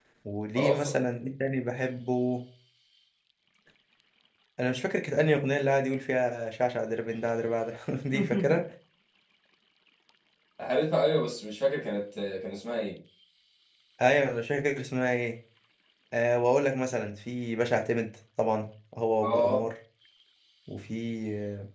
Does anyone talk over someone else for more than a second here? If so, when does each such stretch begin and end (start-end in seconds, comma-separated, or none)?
none